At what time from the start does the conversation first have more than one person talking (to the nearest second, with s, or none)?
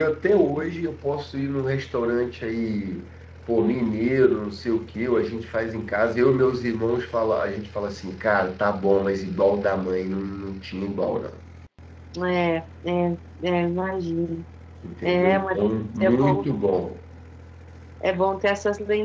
15 s